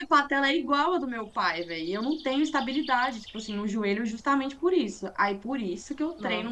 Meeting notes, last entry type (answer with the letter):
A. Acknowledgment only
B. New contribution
A